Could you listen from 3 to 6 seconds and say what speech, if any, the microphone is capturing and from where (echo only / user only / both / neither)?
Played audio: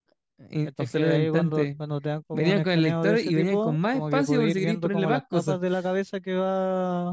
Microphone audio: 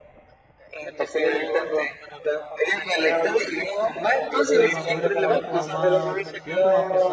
both